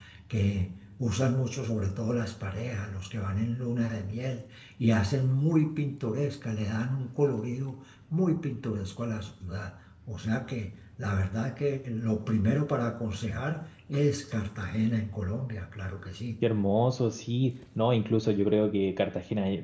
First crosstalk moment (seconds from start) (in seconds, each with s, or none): none